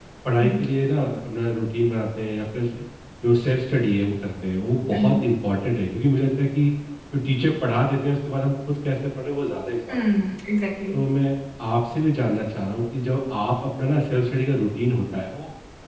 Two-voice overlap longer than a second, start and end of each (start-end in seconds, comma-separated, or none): none